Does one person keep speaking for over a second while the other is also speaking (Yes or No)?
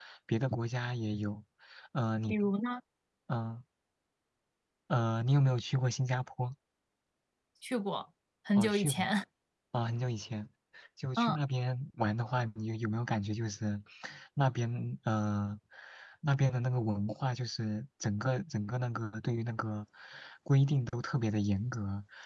No